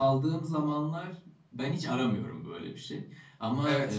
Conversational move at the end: listening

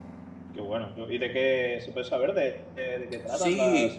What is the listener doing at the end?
taking over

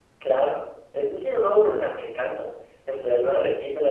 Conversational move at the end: listening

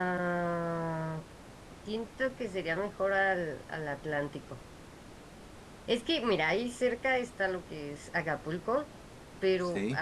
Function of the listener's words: listening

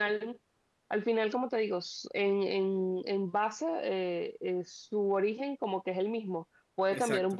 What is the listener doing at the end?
listening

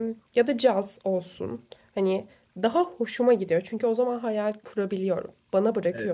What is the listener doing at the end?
taking over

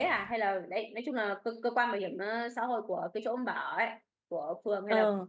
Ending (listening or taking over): listening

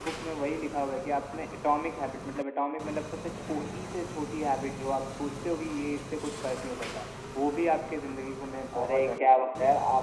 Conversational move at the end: taking over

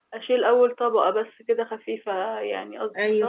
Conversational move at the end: taking over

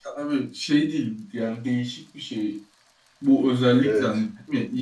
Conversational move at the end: listening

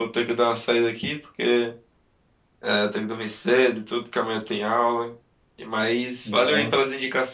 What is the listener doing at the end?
listening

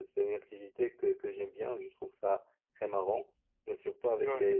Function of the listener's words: listening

